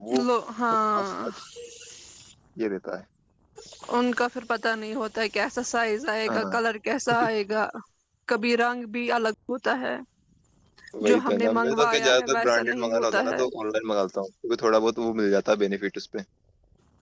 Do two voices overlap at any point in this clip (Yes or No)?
Yes